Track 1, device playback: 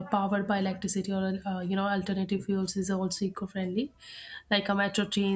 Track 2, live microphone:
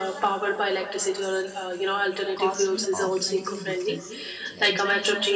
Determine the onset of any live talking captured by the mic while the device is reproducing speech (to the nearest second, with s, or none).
2 s